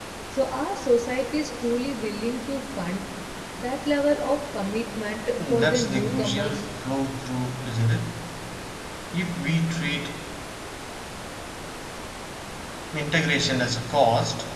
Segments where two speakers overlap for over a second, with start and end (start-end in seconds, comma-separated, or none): 5.4-6.6